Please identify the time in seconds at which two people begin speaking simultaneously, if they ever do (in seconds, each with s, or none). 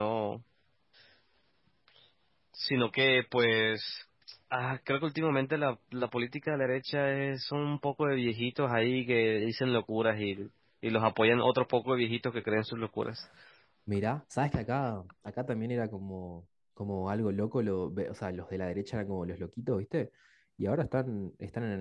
none